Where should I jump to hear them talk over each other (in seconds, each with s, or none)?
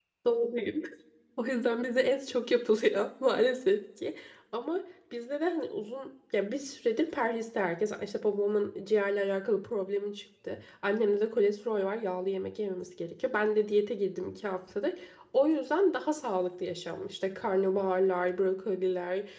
none